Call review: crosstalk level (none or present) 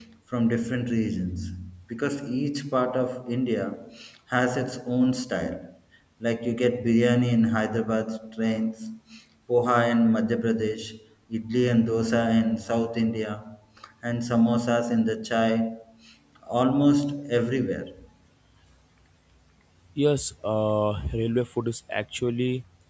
none